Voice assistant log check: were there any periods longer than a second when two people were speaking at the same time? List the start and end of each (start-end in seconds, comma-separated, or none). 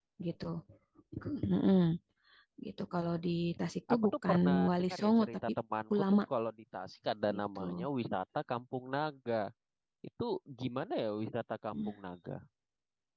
4.0-5.3